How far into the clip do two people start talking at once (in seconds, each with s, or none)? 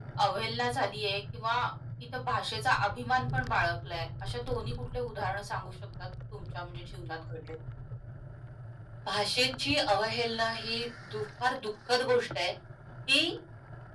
none